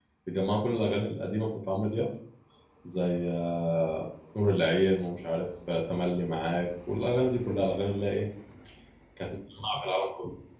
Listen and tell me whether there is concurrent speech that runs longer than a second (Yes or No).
No